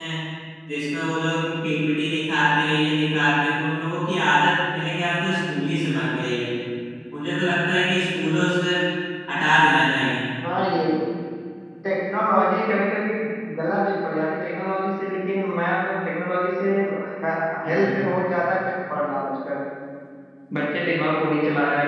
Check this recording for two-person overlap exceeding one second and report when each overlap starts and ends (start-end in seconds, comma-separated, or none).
none